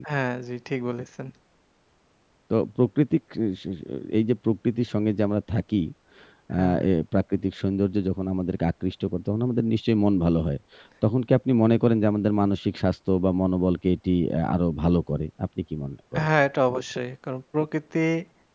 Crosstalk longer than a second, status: none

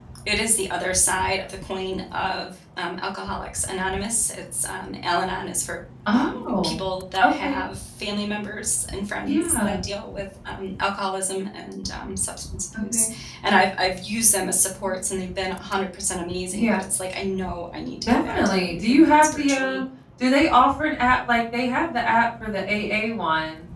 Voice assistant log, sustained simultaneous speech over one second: present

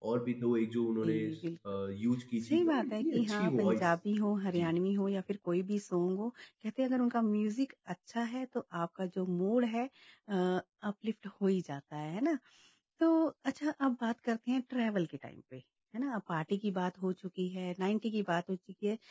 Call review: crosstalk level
present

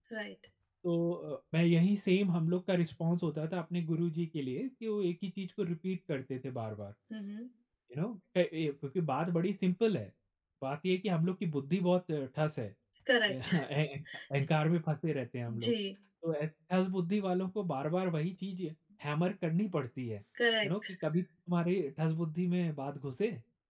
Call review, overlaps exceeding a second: none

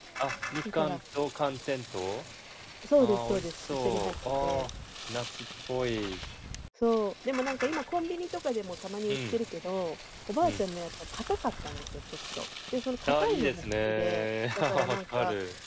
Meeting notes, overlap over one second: present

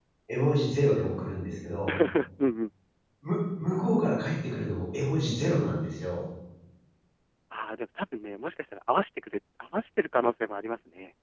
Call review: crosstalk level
none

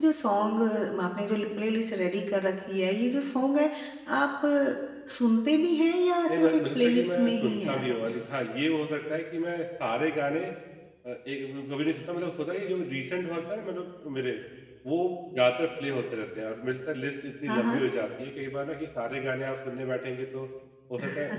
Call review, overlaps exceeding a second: present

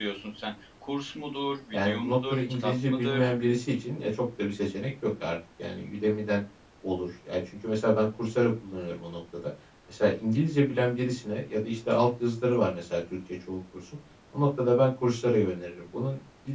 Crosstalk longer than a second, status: present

